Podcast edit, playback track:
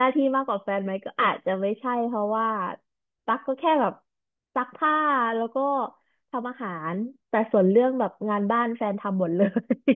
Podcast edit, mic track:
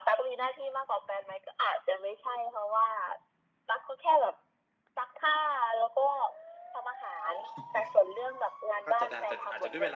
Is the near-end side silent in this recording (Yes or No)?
No